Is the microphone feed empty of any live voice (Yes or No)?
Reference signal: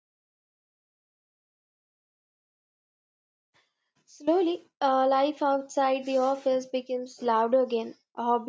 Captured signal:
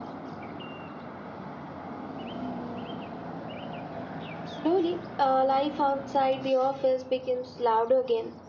Yes